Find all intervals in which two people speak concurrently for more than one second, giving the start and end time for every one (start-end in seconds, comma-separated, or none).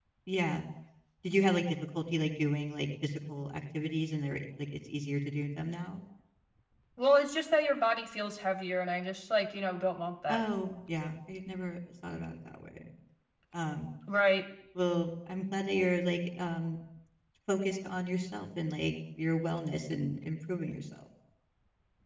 none